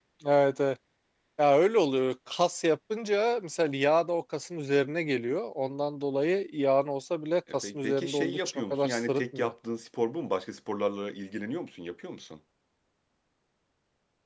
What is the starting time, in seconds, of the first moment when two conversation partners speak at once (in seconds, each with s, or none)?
7.6 s